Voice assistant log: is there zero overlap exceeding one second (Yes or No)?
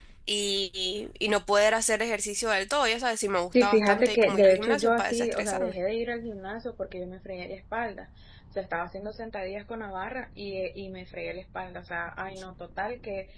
No